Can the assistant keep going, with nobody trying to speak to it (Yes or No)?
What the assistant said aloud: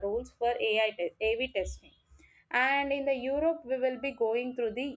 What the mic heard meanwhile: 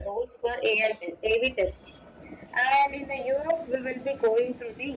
Yes